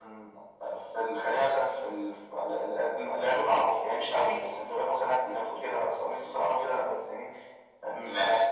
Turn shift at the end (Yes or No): No